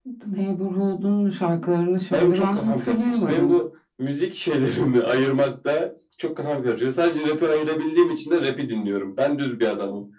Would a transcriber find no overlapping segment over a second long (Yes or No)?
No